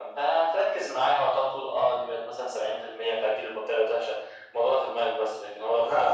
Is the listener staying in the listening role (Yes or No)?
No